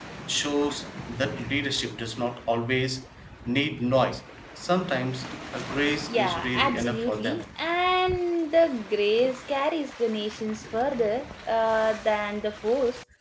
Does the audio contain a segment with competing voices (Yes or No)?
Yes